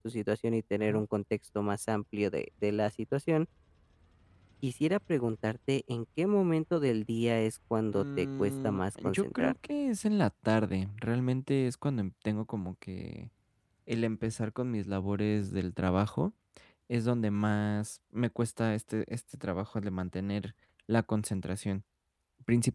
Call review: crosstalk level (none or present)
present